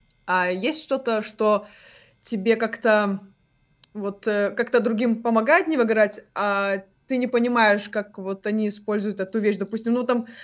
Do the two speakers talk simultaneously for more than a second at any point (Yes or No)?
No